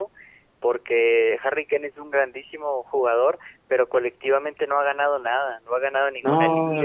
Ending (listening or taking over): listening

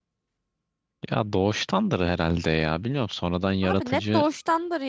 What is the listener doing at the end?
taking over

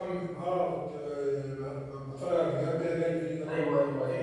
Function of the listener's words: taking over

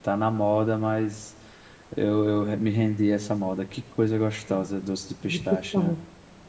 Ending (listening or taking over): taking over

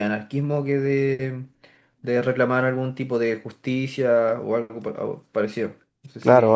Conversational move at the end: taking over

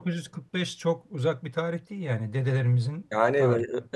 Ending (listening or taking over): taking over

